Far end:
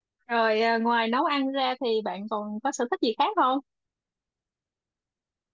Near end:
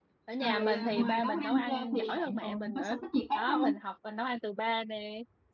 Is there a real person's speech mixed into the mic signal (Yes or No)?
Yes